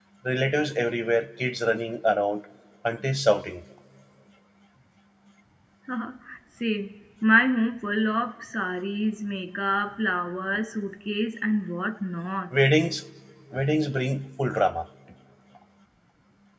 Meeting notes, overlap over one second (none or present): none